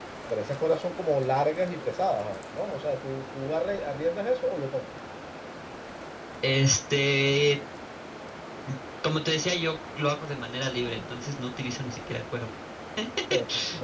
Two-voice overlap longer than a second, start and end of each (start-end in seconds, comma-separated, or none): none